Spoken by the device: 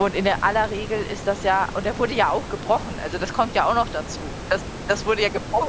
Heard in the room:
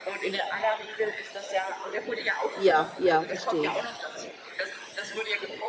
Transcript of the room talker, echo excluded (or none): Ja, ja, verstehe ich.